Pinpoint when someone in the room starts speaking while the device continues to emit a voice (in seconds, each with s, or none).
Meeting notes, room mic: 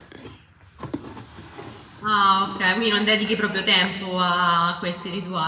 2.0 s